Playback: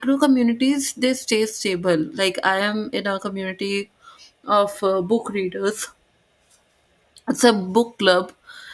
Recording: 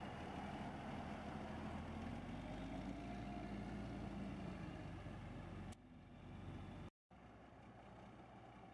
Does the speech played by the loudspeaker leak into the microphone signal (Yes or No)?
No